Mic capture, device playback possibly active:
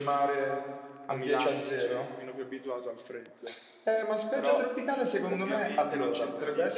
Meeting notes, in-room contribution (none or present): present